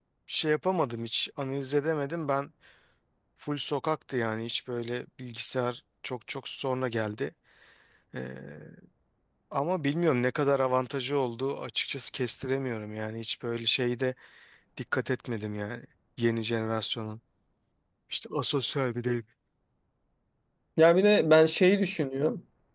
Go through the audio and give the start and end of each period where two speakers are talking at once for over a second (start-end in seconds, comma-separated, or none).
none